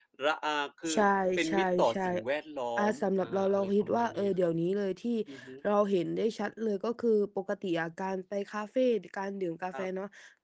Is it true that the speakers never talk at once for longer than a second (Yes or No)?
No